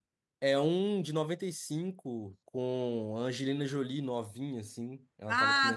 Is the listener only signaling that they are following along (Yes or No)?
No